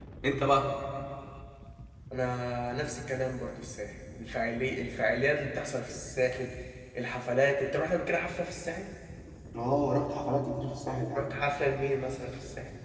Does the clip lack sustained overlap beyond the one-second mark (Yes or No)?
Yes